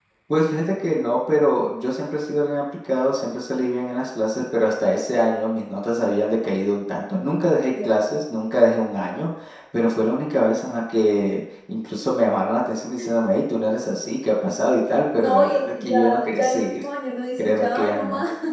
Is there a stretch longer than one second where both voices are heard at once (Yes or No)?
Yes